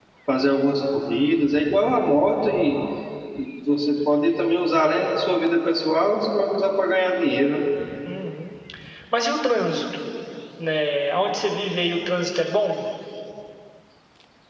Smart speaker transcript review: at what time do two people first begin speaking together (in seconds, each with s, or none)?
none